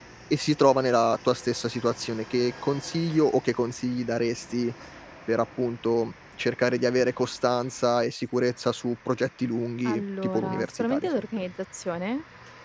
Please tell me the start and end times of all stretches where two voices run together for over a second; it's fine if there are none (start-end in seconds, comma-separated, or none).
9.8-11.4